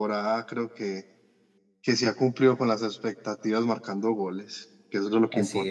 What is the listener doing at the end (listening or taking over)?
taking over